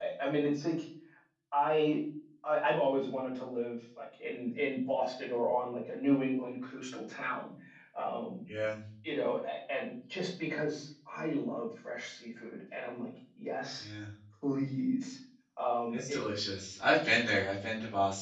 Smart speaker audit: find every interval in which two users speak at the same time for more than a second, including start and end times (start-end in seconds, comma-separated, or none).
none